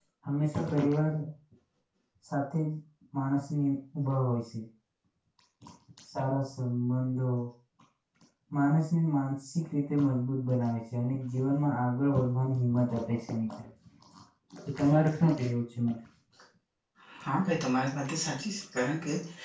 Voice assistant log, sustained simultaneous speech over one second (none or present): none